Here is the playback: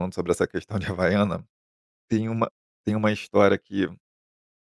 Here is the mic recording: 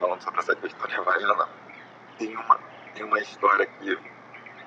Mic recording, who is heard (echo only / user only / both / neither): echo only